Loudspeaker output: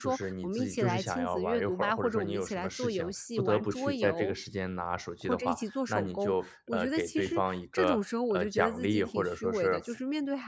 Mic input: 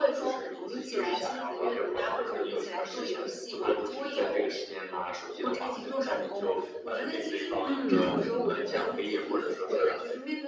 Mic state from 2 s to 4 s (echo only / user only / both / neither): echo only